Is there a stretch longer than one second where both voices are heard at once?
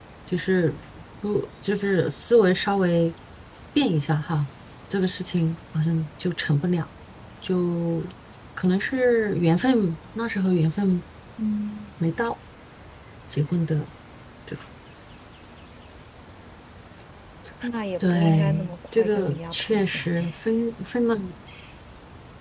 Yes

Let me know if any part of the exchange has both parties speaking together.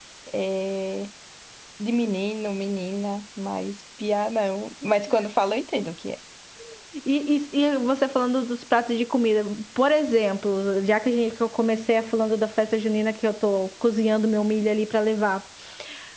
No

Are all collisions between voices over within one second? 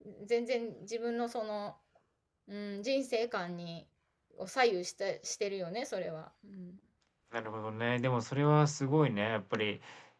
Yes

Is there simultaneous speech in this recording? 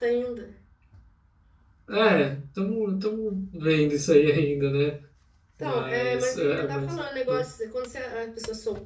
Yes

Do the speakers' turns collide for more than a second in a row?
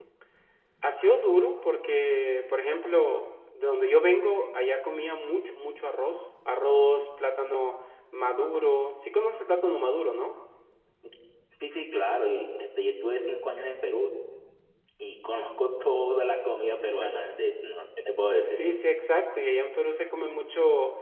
No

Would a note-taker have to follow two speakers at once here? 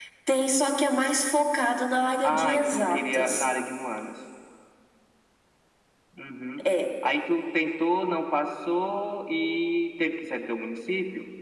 Yes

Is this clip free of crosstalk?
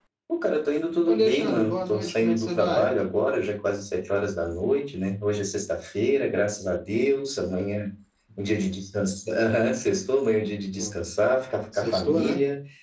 No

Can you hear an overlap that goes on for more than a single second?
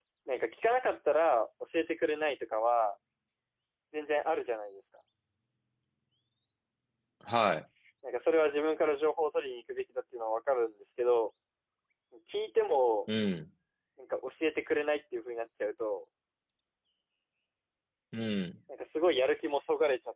No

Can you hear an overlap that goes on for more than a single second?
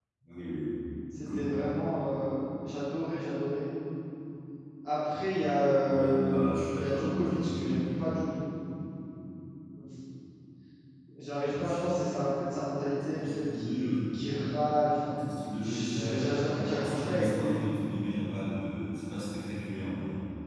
Yes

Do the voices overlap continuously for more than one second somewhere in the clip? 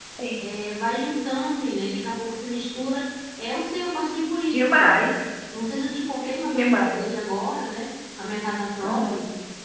No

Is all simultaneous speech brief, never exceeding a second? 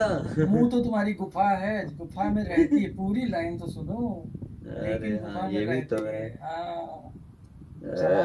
No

